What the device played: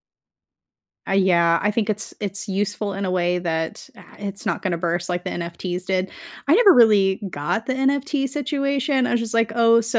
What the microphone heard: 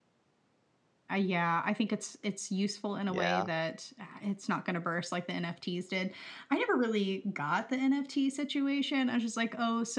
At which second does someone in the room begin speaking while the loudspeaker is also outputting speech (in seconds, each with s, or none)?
3.1 s